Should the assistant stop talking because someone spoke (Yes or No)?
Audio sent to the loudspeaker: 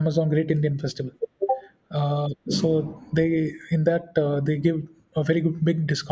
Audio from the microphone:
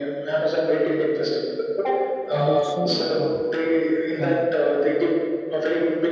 Yes